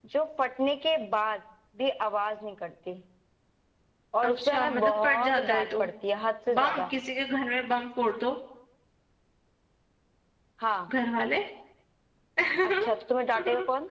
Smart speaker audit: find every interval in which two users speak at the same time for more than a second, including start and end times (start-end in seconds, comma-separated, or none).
4.3-5.8